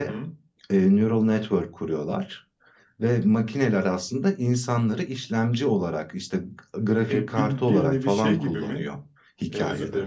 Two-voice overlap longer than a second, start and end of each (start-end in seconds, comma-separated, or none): 7.1-8.8